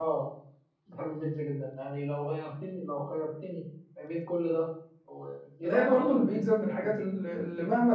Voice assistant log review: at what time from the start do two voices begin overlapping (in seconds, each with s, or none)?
5.6 s